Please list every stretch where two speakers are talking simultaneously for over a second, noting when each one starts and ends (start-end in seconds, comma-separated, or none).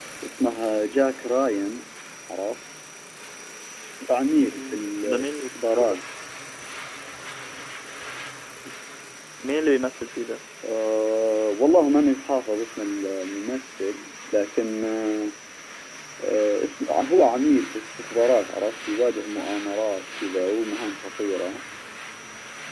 4.4-6.0